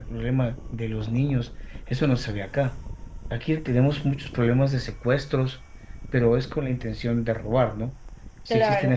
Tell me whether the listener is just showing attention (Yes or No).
Yes